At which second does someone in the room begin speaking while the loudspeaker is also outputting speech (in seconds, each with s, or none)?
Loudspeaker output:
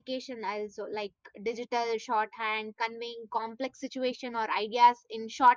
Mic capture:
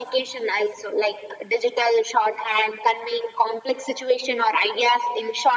none